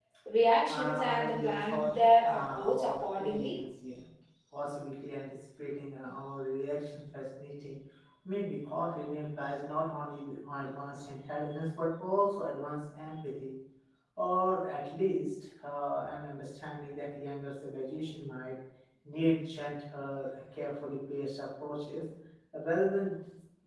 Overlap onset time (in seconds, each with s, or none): 0.7 s